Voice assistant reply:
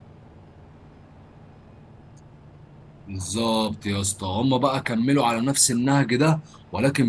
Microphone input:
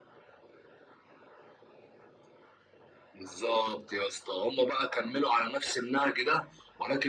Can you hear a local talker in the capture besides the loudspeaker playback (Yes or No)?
No